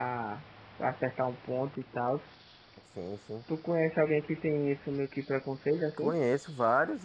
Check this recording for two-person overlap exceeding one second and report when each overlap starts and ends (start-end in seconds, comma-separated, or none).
none